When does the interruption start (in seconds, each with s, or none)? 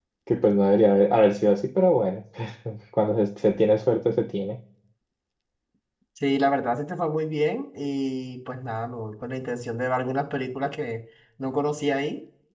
none